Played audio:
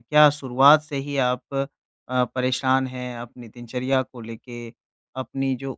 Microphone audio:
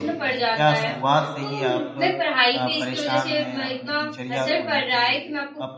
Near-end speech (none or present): present